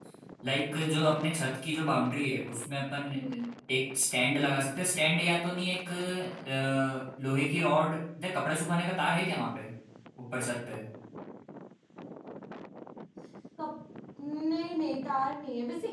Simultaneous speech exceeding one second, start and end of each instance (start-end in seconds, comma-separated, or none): none